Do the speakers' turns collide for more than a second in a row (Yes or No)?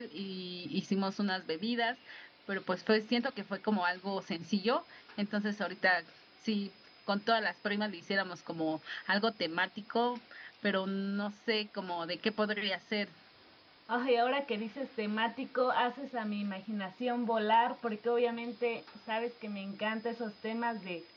No